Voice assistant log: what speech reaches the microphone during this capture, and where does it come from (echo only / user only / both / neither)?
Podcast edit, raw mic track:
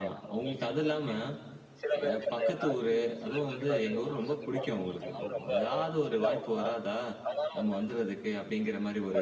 both